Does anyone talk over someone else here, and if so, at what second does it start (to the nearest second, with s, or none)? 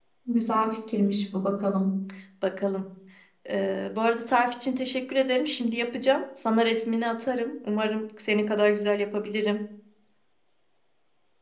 none